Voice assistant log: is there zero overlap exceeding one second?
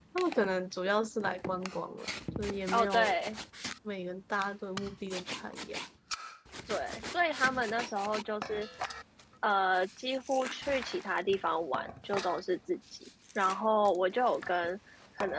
Yes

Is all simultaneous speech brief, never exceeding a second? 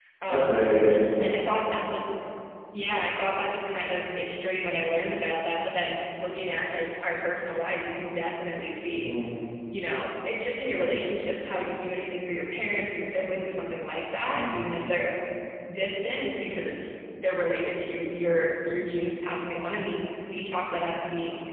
Yes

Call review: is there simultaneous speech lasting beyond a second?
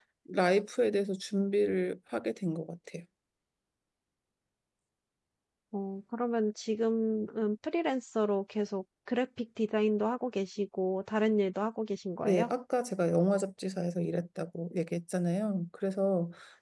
No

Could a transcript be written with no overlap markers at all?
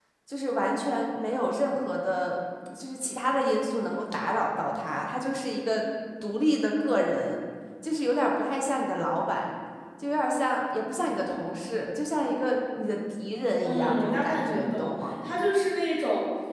No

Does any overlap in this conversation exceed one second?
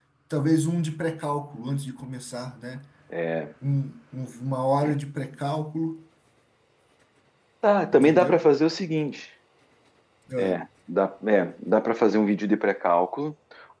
No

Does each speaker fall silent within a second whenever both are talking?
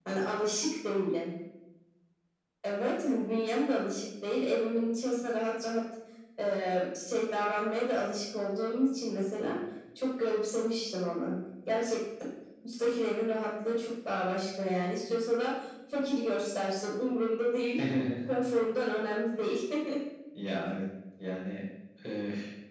Yes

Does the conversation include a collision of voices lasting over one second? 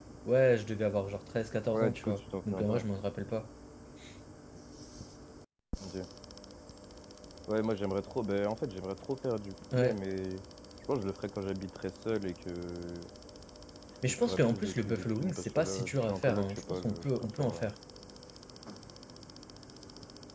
Yes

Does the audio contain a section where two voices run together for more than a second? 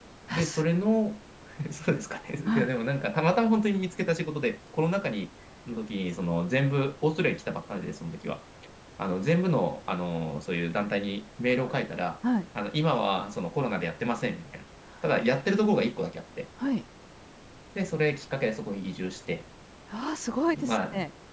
No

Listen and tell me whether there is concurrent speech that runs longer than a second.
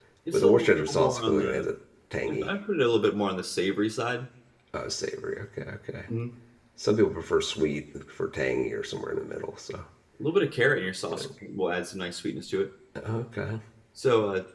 Yes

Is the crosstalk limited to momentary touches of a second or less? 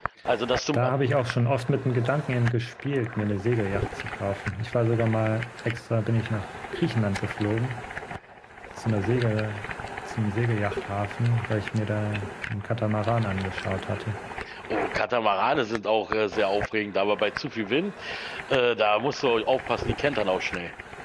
Yes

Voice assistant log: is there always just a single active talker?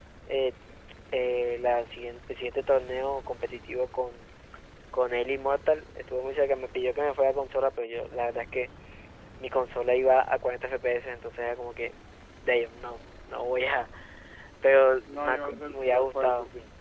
No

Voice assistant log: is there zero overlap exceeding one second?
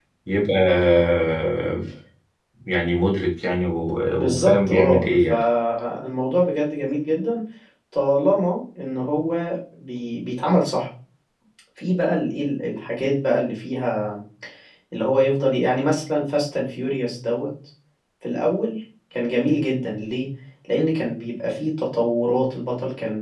No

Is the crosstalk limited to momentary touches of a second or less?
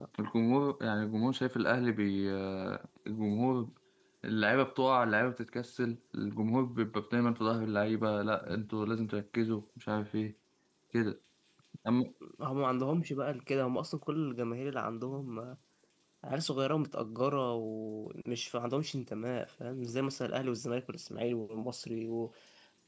Yes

